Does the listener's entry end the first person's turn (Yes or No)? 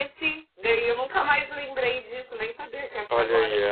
Yes